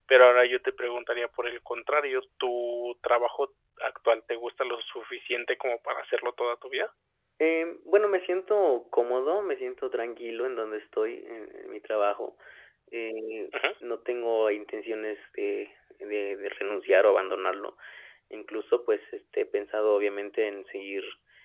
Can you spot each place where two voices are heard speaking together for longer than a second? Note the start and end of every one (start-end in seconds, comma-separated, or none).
none